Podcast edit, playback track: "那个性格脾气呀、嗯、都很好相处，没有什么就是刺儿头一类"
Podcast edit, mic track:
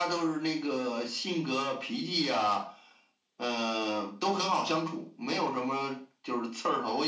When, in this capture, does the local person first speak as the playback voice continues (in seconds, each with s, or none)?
none